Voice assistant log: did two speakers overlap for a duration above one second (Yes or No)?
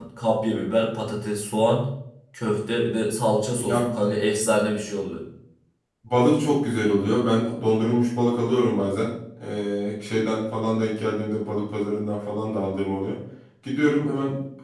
No